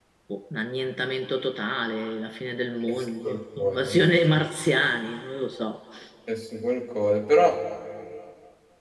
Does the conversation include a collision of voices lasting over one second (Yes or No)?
Yes